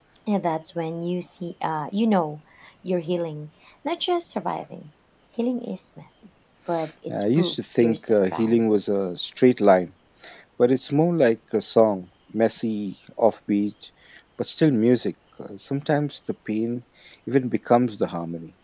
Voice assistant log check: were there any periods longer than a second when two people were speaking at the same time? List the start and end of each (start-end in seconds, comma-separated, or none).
7.1-8.7